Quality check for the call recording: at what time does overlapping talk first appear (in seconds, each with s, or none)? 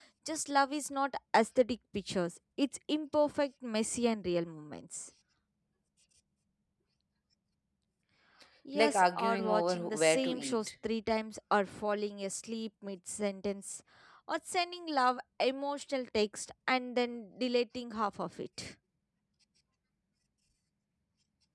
8.7 s